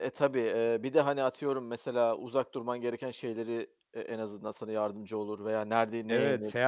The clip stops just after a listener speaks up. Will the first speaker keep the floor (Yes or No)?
No